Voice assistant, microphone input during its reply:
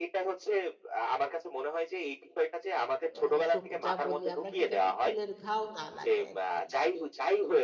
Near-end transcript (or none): আ টুক যা বলি আমরা কি যেন? ফুলের ঘাও না লাগে আরকি।